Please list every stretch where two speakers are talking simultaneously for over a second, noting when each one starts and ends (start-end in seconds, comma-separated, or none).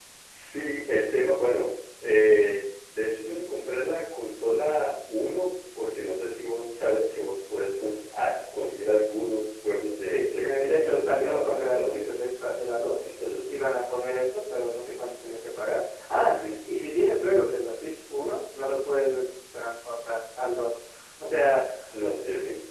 10.1-12.2